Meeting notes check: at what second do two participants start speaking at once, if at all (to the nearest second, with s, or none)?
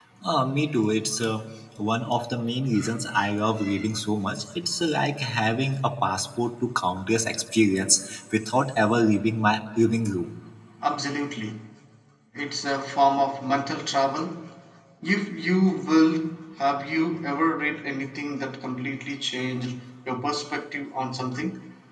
none